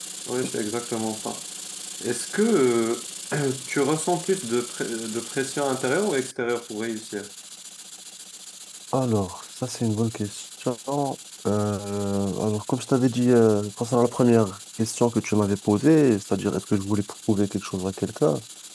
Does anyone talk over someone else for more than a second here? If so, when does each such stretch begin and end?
none

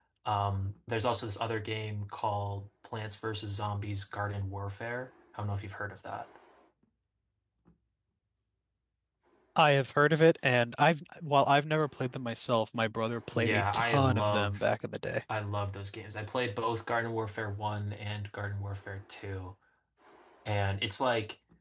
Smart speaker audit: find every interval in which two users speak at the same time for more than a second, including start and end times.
13.3-14.7

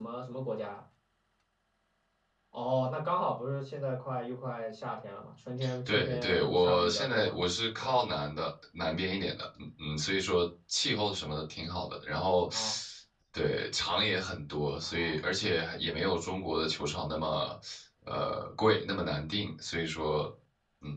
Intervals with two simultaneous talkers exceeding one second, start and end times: 5.9-7.4

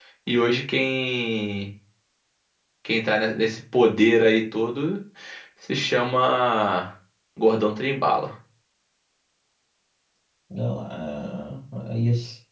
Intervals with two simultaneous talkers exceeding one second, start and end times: none

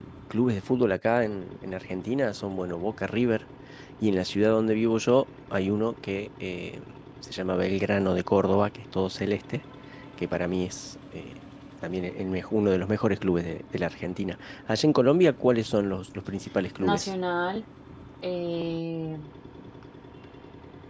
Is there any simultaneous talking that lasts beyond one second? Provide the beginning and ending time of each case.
none

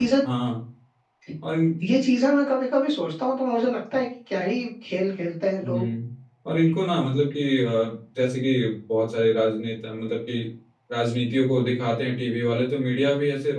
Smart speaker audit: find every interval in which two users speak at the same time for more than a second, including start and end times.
none

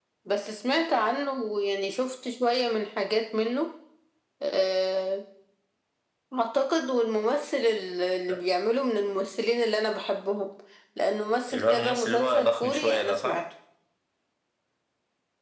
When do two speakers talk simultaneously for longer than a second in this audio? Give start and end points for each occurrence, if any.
11.5-13.4

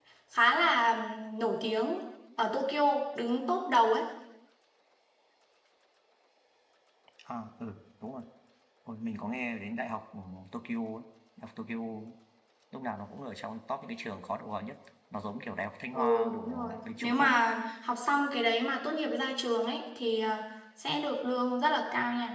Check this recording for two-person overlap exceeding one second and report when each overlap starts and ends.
15.9-17.4

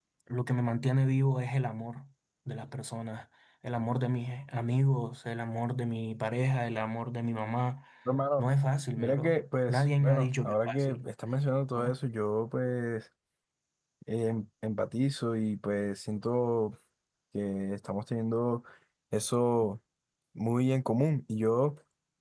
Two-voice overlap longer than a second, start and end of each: 9.0-11.0

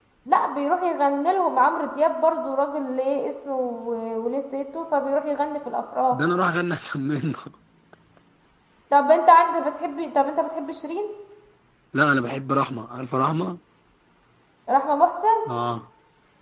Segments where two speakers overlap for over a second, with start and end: none

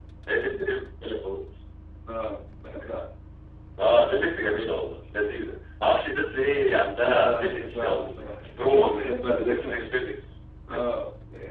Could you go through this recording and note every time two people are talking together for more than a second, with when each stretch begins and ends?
6.9-8.2, 8.6-9.8

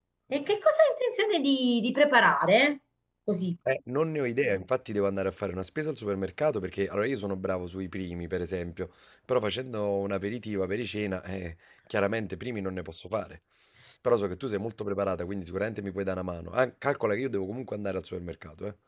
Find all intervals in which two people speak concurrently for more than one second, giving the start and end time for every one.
none

